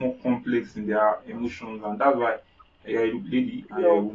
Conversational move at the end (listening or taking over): taking over